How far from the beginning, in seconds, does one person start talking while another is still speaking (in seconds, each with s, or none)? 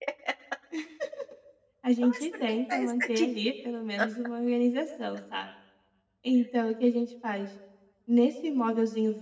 2.0 s